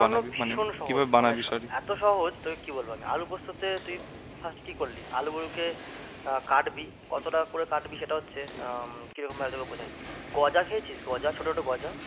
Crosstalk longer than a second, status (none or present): present